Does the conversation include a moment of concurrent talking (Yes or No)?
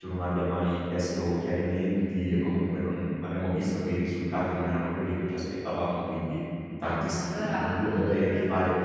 Yes